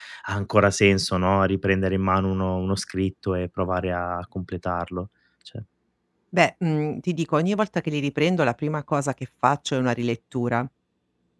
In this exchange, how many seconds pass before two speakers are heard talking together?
none

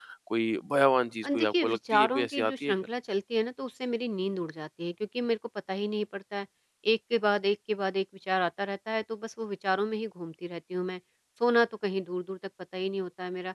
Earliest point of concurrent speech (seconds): 1.2 s

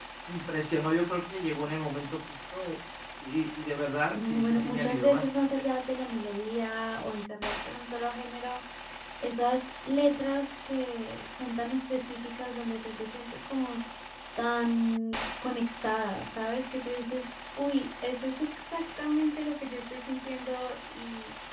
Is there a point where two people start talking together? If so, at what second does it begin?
4.1 s

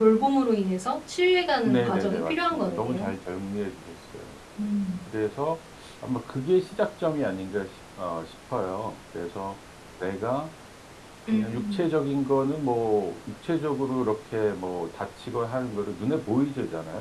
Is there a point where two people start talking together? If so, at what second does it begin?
1.6 s

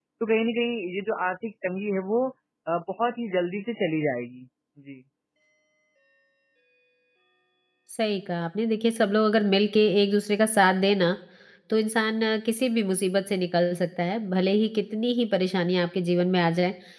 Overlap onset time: none

